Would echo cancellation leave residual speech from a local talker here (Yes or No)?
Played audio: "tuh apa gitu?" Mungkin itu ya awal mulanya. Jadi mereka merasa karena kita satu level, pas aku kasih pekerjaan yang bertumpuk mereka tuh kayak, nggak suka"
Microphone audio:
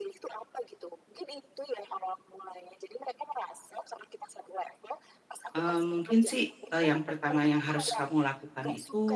Yes